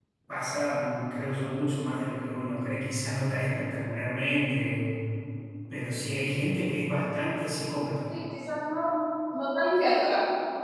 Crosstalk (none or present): none